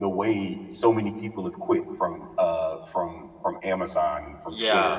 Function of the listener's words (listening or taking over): taking over